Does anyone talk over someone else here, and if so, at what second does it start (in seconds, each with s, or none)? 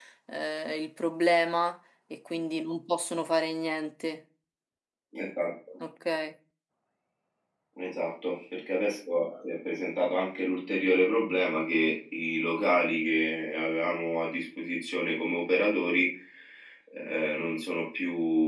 none